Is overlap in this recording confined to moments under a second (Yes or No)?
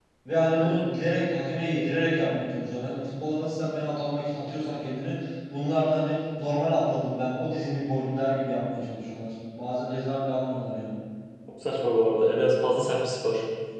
Yes